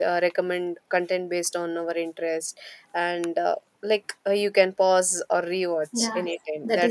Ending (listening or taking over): taking over